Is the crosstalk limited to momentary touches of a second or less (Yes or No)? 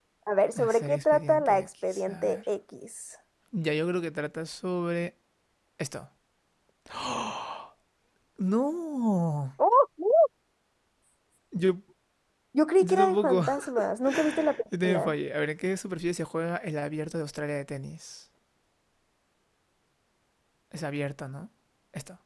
No